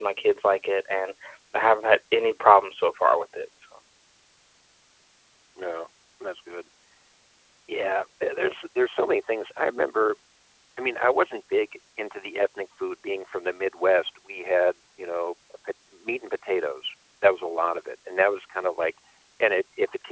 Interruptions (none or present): none